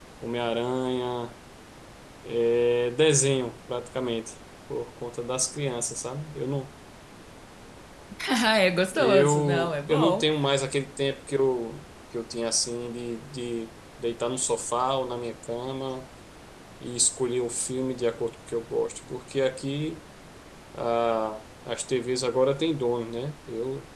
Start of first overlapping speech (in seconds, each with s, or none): 8.9 s